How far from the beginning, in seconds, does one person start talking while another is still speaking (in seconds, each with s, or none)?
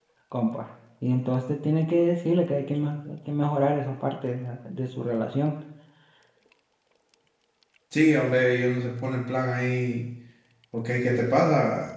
none